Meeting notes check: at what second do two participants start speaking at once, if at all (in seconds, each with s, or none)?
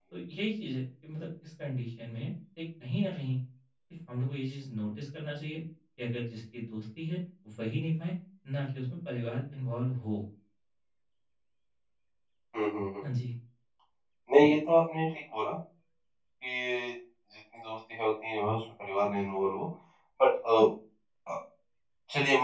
none